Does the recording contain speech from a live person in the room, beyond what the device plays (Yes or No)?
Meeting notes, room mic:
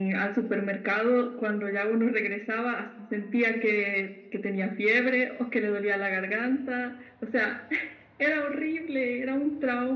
No